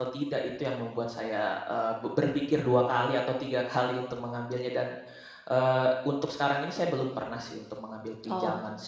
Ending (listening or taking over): taking over